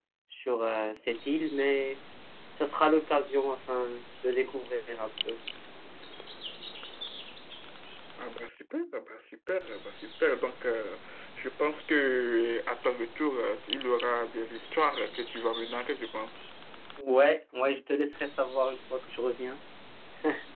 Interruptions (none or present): none